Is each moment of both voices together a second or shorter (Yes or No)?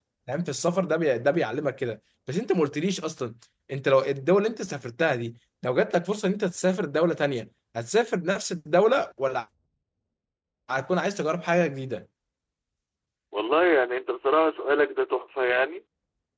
Yes